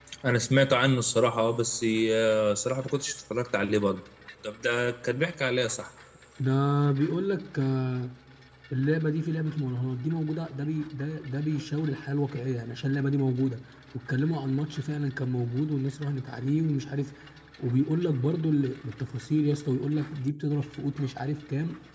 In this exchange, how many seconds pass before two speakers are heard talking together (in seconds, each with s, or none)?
none